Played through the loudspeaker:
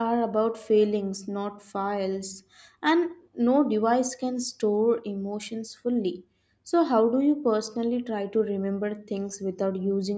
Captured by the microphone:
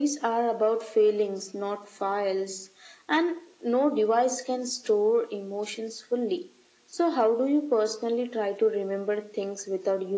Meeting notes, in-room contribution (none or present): none